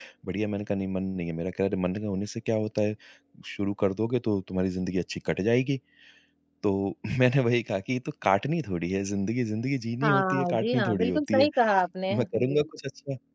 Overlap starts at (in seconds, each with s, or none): 10.0 s